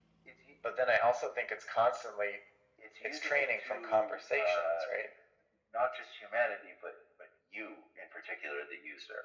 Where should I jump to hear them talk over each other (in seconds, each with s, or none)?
3.0 s